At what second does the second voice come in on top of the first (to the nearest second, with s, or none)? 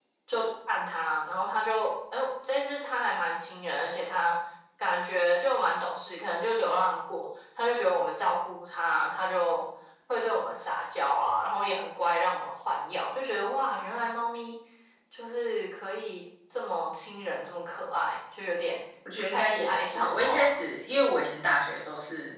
19 s